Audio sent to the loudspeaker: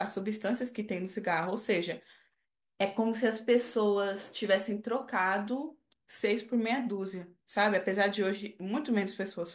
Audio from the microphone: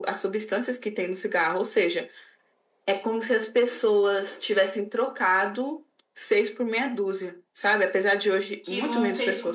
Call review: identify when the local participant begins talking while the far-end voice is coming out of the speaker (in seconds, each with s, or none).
8.6 s